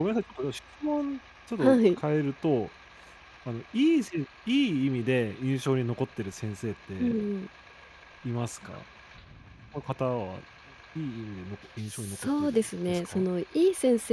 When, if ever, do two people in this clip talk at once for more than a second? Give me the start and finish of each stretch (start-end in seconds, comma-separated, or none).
11.9-13.2